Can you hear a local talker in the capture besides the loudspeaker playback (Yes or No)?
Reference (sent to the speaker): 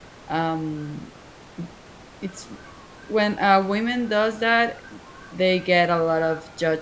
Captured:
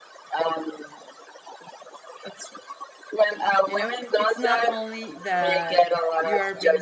Yes